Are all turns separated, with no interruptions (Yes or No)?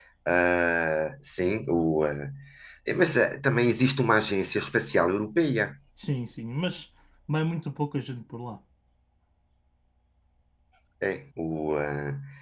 Yes